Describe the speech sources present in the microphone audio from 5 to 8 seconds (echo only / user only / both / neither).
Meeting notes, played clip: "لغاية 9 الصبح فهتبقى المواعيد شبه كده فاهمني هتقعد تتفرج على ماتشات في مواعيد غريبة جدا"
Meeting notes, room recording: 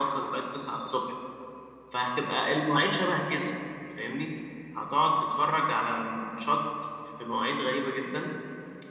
echo only